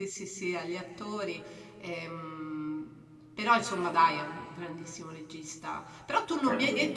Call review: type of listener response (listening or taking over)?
listening